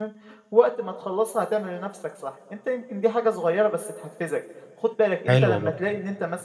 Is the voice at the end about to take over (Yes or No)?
No